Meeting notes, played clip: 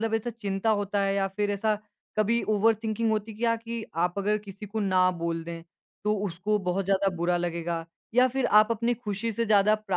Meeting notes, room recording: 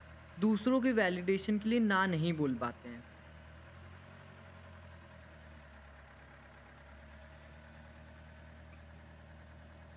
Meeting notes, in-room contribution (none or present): present